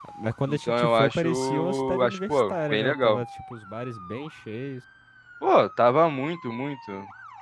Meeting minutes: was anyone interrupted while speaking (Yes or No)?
Yes